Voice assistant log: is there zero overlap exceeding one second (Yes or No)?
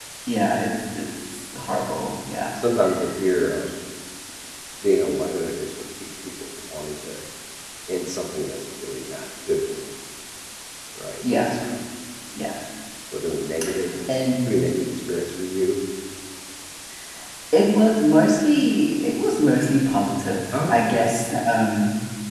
Yes